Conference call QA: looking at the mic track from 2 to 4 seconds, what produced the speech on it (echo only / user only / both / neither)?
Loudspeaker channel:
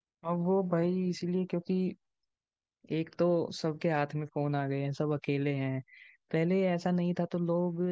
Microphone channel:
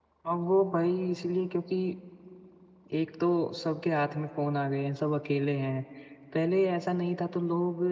echo only